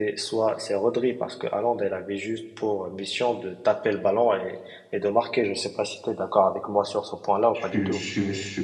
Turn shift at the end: Yes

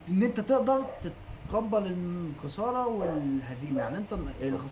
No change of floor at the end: Yes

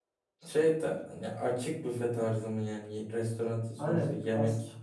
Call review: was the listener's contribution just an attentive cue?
No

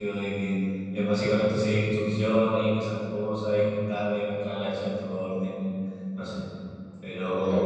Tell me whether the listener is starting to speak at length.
No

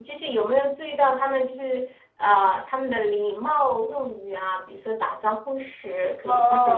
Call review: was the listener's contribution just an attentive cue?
No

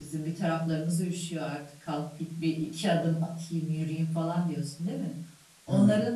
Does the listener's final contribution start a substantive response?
No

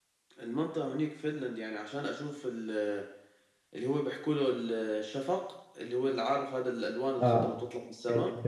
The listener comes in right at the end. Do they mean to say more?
Yes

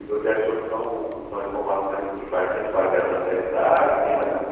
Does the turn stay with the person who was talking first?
No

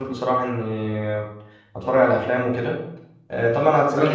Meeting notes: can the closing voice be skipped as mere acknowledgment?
No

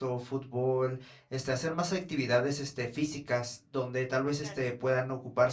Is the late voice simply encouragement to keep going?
Yes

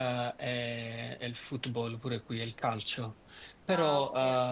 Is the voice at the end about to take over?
No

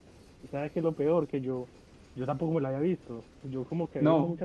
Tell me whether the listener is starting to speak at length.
No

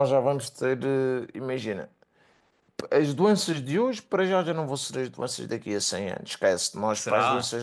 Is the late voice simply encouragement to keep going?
Yes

